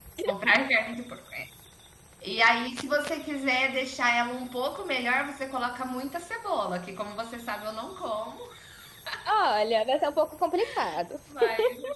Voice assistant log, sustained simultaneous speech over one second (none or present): none